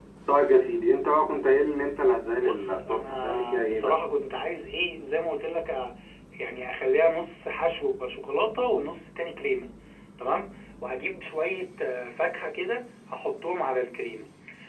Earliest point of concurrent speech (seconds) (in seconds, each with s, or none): 2.4 s